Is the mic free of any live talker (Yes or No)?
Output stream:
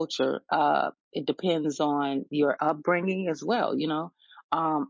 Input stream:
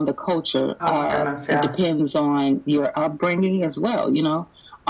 No